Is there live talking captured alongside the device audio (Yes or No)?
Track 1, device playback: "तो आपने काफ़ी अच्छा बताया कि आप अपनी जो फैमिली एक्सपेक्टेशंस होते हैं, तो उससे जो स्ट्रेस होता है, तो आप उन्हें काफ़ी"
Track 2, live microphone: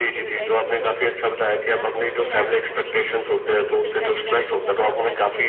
Yes